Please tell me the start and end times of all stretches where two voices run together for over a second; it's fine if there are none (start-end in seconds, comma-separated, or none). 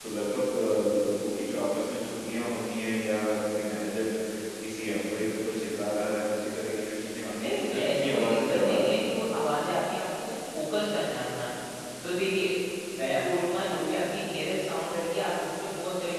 7.4-9.1